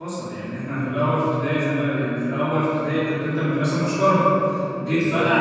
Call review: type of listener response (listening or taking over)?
listening